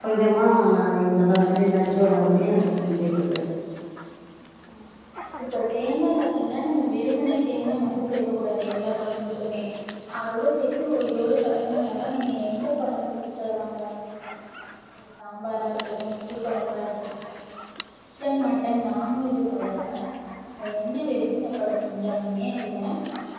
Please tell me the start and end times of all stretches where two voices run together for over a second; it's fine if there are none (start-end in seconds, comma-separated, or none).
none